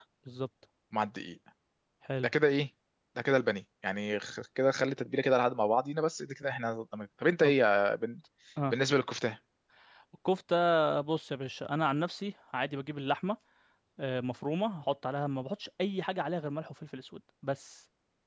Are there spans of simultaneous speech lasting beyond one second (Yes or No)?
No